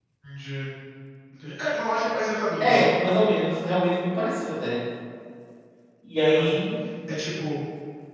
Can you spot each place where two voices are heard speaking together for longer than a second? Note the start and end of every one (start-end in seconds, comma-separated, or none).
none